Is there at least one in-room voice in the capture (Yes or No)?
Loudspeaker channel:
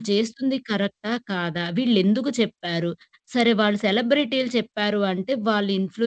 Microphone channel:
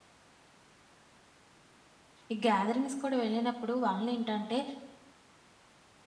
Yes